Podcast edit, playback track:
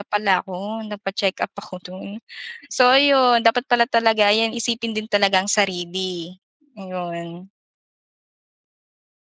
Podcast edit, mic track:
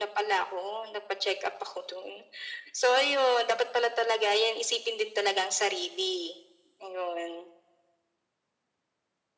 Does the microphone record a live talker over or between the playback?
No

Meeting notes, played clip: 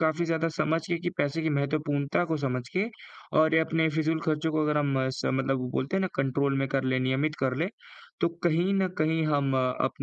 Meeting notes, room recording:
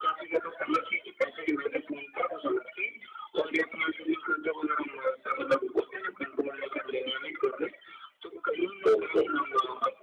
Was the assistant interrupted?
Yes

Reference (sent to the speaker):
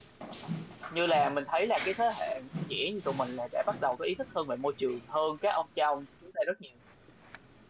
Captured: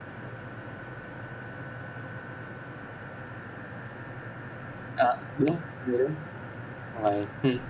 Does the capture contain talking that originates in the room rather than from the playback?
Yes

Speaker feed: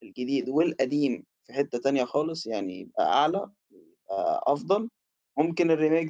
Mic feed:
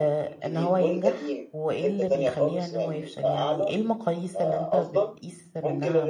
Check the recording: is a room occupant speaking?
Yes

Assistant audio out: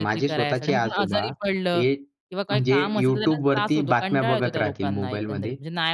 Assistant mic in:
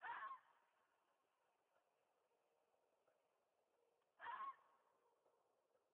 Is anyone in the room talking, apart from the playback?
No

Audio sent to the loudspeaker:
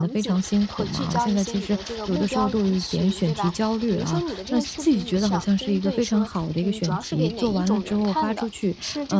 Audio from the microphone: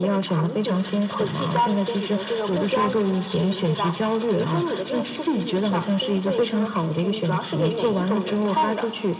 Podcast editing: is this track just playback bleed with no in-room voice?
Yes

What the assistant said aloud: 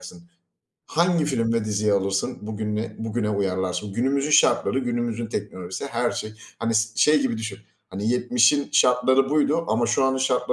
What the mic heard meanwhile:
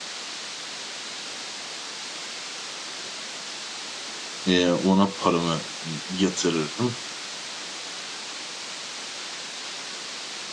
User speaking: Yes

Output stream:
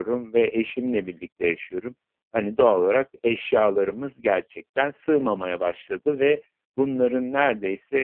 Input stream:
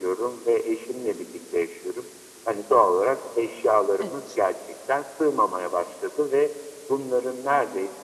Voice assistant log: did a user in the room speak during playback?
Yes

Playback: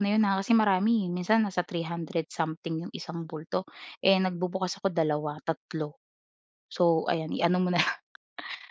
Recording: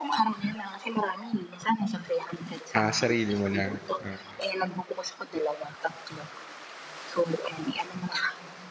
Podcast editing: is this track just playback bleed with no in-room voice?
No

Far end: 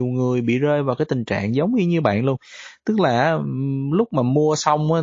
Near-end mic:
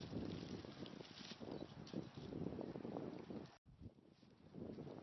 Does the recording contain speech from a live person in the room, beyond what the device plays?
No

